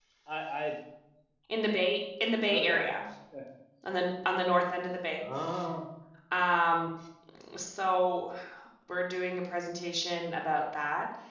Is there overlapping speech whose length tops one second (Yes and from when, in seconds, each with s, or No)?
No